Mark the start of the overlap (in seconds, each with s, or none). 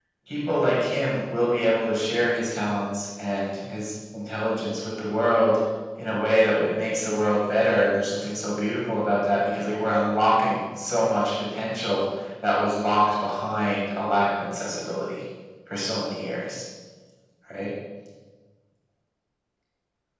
none